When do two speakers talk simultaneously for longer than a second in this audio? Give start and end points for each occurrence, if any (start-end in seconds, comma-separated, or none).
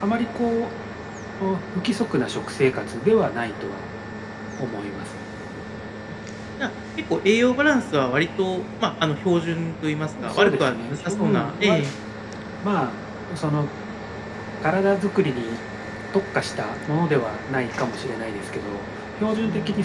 10.2-11.9